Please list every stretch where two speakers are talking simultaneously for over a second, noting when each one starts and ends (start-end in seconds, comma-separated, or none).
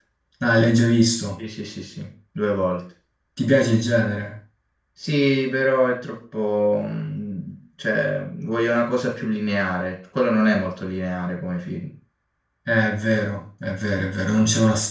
none